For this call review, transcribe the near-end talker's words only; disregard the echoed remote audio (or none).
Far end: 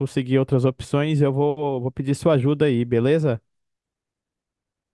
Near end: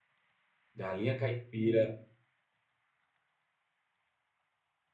galinha caipira.